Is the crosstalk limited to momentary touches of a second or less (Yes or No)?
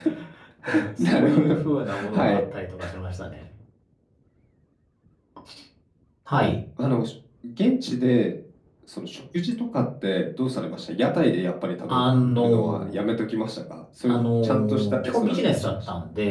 No